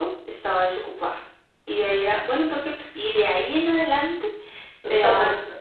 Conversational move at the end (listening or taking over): listening